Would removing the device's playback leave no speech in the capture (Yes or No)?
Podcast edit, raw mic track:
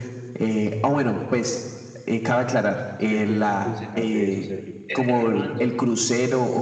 No